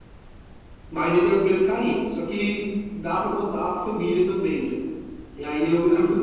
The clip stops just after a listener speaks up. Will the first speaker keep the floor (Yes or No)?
Yes